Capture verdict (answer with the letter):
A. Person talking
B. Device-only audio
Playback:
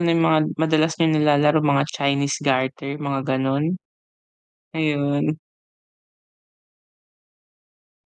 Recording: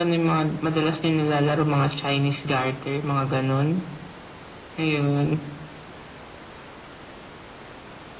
B